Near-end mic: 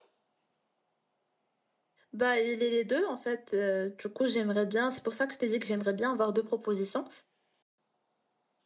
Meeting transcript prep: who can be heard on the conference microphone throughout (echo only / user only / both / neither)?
user only